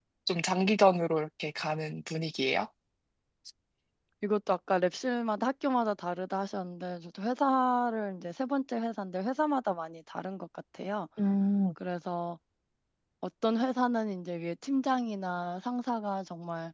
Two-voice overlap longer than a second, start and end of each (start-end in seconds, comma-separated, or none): none